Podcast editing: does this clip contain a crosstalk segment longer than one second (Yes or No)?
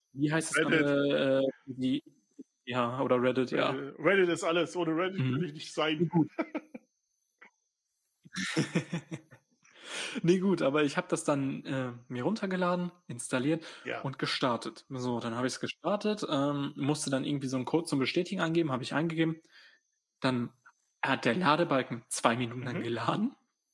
No